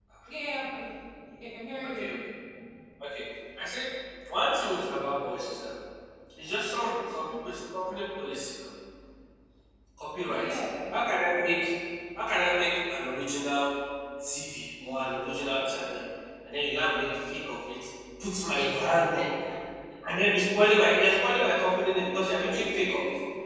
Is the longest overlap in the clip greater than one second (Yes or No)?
No